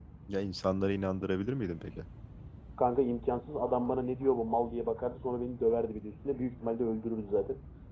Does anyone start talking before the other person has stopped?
No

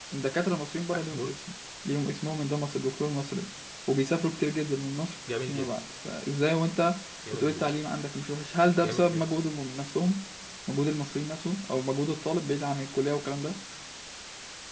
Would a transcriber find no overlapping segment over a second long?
Yes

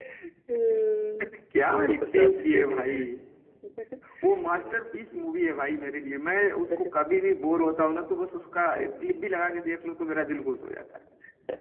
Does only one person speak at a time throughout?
No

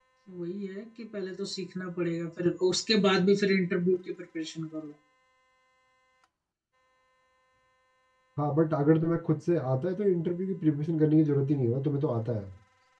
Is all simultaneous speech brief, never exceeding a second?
Yes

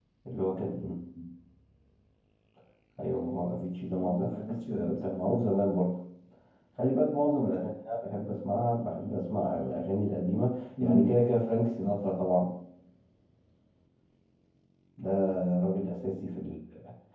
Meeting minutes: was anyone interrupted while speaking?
Yes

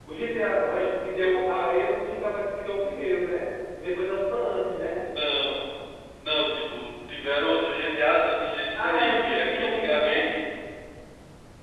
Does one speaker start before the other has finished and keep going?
Yes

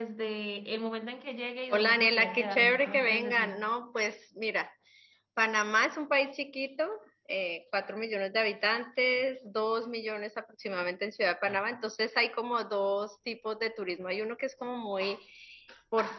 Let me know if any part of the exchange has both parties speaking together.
Yes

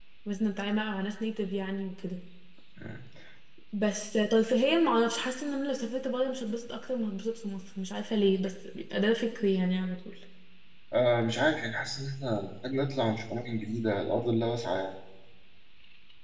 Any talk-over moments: No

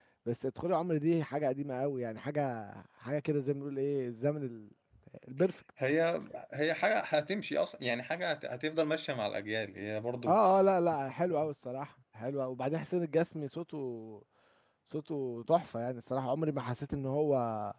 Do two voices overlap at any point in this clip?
No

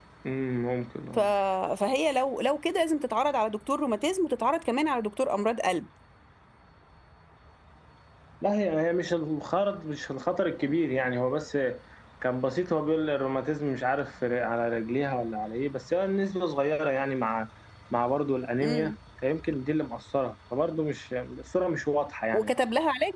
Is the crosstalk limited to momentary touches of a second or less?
Yes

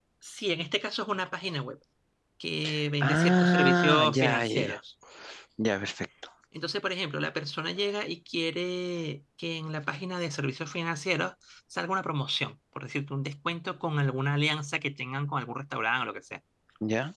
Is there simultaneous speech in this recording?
Yes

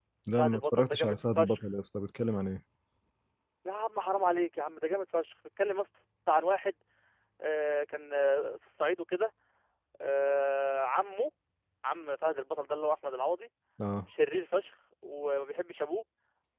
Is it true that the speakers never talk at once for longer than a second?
No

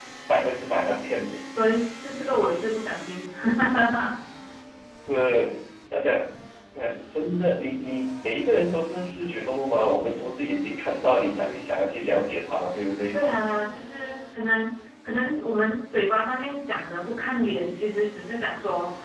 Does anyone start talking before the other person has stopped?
No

